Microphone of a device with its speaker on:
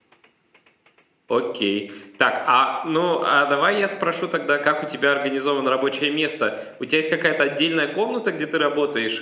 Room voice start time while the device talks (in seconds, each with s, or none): 1.3 s